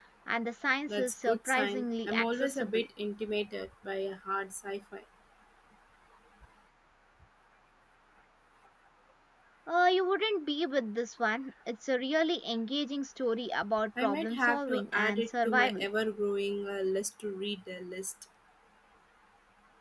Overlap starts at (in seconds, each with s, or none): 1.0 s